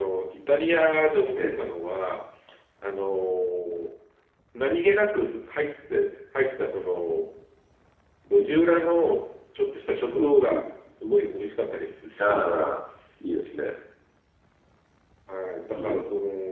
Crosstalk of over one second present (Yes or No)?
No